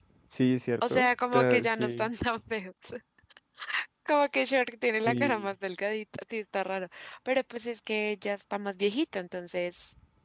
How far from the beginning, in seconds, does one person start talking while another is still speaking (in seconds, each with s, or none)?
0.9 s